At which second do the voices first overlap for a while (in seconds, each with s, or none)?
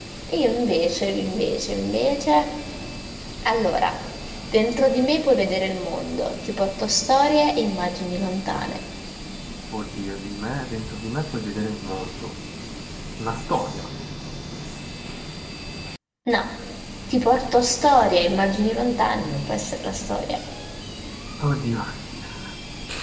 none